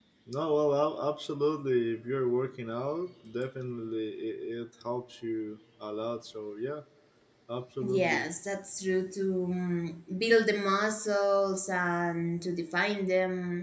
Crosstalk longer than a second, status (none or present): none